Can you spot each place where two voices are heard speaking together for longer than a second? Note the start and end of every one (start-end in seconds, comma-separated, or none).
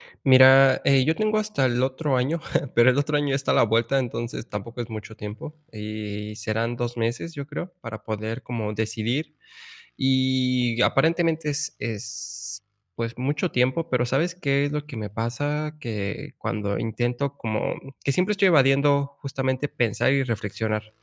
none